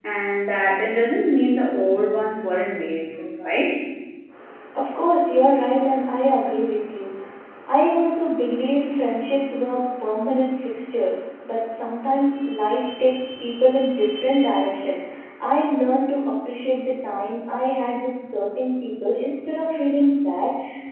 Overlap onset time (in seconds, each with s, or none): none